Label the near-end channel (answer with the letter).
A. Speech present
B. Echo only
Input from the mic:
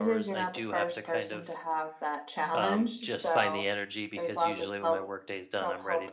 A